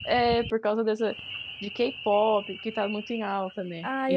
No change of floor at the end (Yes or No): No